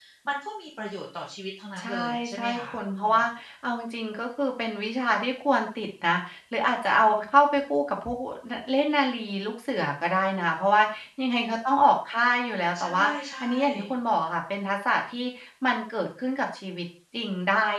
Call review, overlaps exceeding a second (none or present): present